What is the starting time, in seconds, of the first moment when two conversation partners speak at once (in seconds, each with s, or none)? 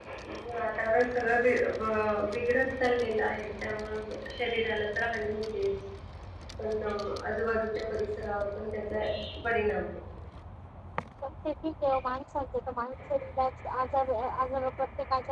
none